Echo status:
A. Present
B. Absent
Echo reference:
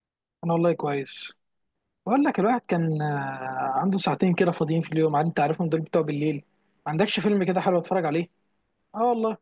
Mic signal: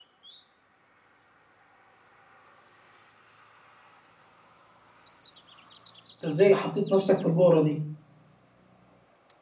B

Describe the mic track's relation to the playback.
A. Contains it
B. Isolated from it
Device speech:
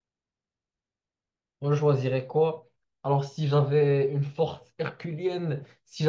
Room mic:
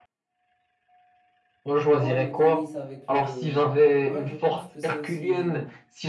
A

